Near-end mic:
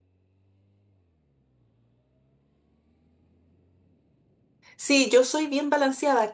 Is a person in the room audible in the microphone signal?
Yes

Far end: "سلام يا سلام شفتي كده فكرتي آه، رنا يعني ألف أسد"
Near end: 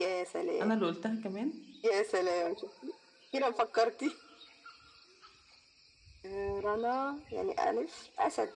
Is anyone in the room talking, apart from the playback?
Yes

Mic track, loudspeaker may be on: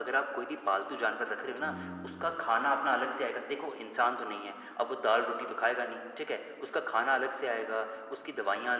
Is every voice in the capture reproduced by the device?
No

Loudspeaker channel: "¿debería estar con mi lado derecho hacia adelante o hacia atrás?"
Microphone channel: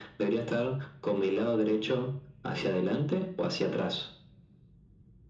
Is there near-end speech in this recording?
No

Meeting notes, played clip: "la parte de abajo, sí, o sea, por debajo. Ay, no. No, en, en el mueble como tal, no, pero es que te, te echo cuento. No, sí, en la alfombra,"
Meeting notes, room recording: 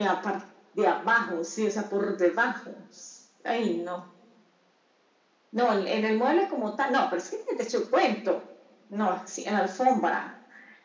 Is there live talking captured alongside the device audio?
No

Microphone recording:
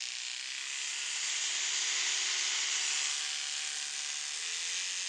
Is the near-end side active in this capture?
No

